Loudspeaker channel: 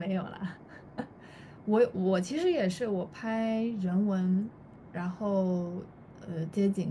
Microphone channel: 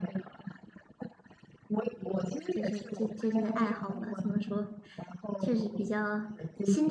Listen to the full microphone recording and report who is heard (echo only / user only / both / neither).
both